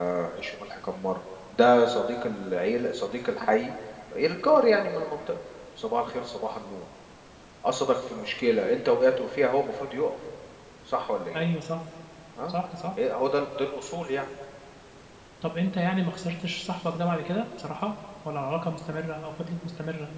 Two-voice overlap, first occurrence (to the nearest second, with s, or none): none